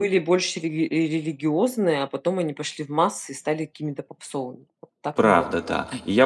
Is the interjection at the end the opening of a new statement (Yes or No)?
Yes